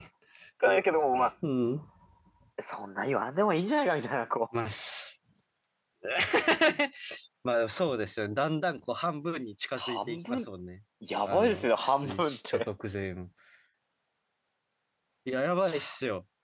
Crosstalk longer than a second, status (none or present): present